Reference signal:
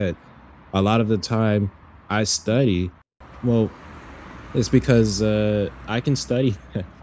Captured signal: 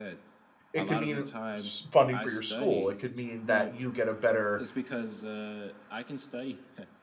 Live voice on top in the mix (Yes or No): Yes